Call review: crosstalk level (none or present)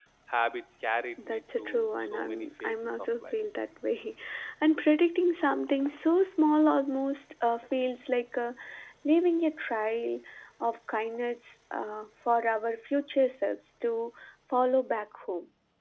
present